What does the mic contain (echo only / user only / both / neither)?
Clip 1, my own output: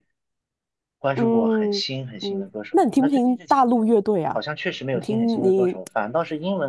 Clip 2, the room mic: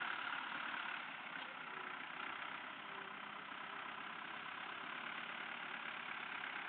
neither